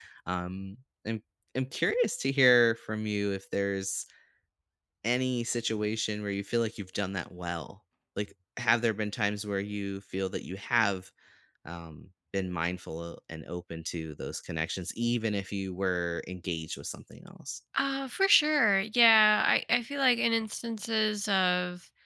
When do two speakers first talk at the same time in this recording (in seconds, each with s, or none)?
none